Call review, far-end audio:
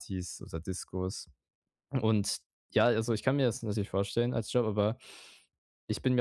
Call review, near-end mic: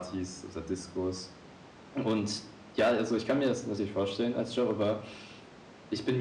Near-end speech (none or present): none